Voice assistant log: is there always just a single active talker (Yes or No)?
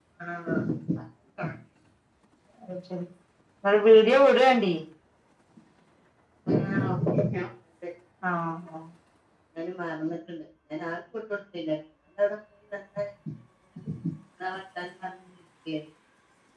Yes